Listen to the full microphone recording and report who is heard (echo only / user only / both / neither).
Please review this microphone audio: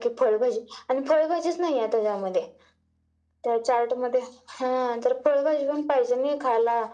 echo only